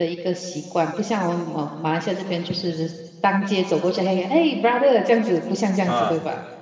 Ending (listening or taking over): taking over